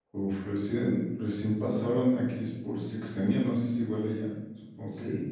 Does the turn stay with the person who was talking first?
No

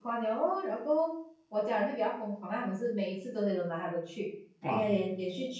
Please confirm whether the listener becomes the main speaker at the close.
No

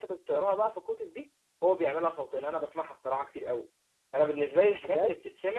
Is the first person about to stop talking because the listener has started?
No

